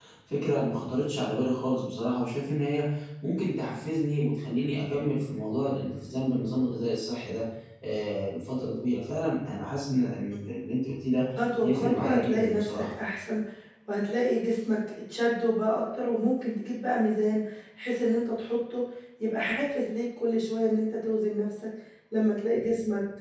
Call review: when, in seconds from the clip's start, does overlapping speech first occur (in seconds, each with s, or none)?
11.6 s